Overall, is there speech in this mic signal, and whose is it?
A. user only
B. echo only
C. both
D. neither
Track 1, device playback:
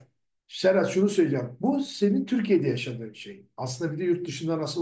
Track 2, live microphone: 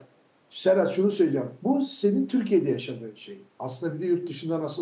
B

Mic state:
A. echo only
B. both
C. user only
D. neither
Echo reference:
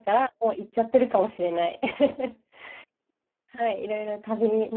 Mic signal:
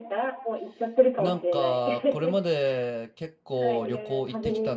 B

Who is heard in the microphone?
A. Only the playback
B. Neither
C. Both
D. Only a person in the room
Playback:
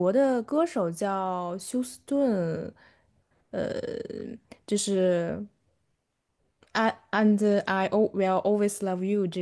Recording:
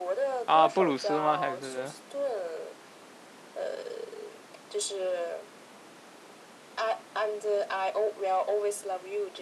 C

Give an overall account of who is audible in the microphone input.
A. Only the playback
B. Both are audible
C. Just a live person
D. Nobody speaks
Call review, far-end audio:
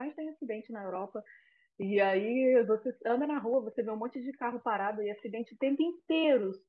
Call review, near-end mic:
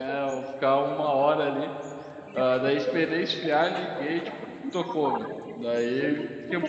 B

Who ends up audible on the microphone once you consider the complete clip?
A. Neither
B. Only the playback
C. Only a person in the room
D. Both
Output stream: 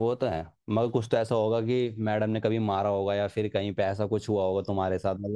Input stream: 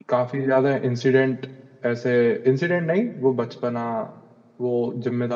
C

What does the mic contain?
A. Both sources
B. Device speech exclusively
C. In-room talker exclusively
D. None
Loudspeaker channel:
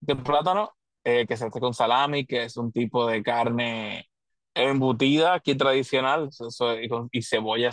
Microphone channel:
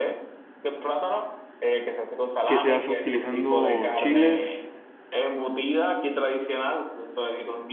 A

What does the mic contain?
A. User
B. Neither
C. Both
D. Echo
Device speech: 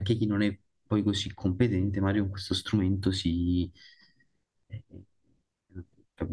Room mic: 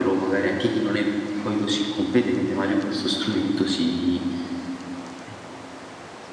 D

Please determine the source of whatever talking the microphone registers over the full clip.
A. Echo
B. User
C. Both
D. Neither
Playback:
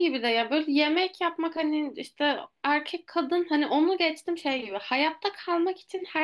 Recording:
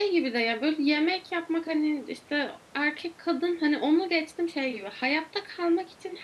A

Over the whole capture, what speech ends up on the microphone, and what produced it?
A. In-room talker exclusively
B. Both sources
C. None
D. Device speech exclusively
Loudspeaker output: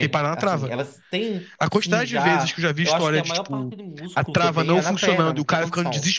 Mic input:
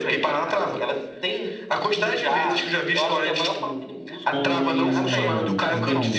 B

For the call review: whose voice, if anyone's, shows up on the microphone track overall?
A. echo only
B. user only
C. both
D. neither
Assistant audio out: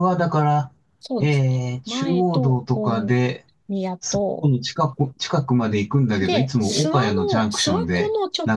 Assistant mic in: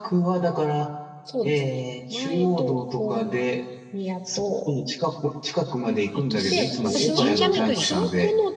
C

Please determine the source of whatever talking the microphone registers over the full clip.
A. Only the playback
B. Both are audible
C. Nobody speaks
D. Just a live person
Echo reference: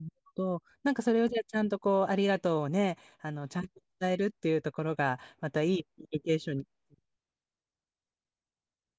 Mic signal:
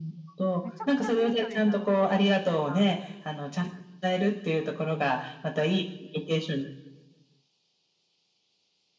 B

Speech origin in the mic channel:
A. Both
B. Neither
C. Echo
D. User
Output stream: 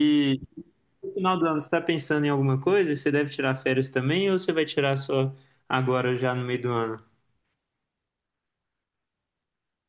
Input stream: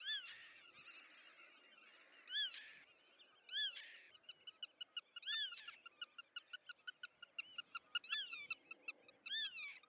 B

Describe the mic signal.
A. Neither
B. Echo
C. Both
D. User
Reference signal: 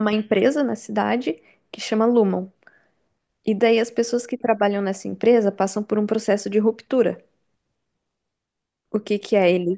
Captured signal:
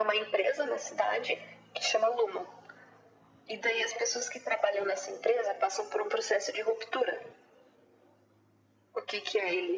B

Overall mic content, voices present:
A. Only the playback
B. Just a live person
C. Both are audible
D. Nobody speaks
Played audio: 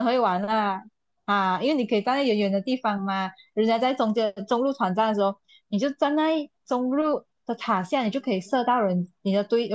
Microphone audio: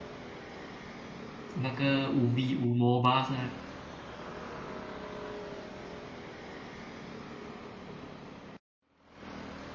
B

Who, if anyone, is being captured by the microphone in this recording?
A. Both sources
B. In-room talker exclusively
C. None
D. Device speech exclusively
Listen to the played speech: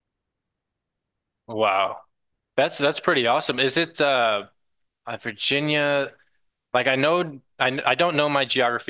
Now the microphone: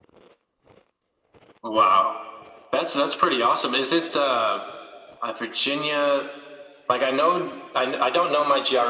D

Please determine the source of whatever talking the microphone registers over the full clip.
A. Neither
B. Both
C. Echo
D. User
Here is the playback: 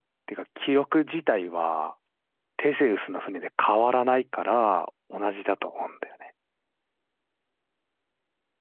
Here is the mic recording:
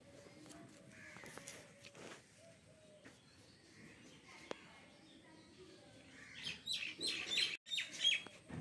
A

